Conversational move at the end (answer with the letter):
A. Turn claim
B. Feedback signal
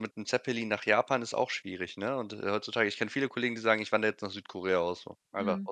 A